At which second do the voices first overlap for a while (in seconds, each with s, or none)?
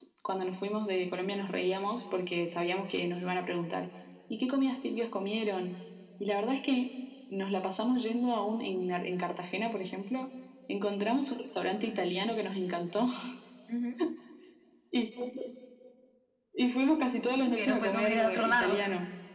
17.4 s